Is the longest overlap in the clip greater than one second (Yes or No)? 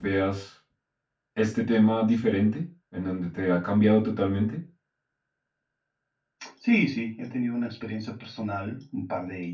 No